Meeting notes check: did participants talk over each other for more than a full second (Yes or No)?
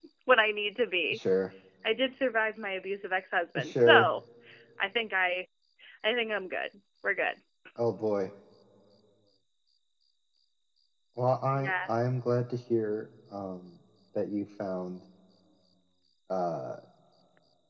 No